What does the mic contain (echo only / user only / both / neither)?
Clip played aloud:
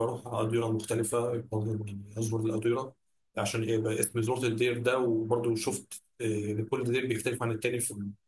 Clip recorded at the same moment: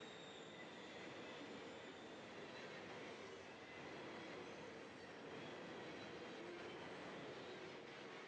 neither